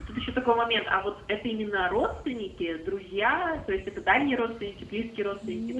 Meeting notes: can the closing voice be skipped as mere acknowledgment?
No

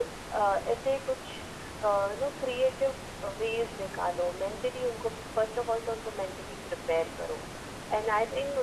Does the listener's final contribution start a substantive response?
No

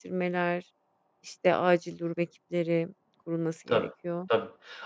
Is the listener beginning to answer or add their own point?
Yes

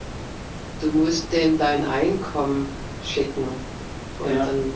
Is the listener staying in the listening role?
Yes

